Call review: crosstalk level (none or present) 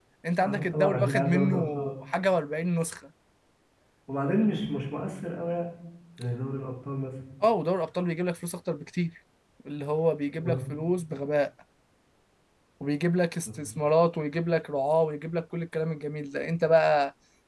present